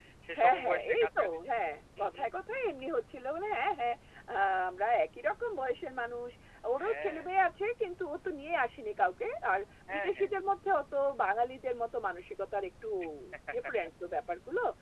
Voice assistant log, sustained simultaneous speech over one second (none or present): present